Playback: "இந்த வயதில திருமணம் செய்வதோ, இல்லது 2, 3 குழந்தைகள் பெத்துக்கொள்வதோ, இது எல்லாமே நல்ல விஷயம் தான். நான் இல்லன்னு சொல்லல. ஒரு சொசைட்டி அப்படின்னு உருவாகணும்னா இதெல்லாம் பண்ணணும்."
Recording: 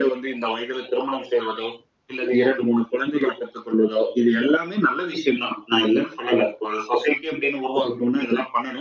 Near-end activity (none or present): none